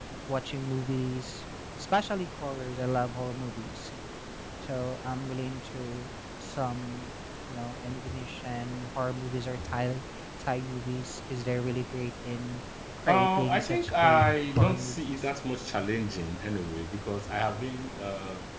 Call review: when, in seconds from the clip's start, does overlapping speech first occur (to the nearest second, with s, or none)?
13 s